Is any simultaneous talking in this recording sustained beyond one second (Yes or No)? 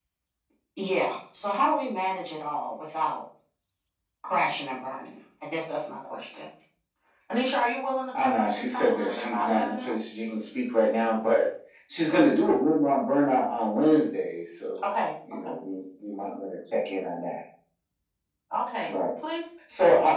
Yes